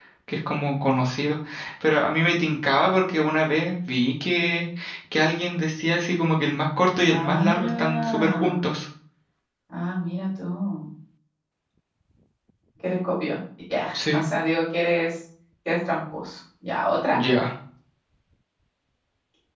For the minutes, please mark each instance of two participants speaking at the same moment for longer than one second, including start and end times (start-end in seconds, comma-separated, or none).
7.0-8.6